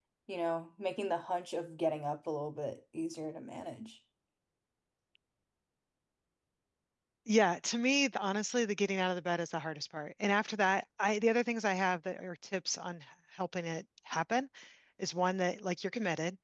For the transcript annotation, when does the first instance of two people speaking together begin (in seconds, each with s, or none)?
none